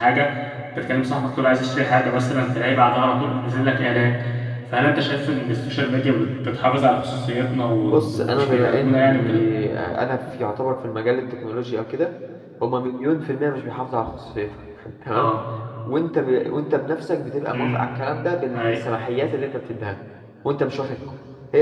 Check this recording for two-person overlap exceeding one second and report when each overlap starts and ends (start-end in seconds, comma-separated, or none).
7.9-9.4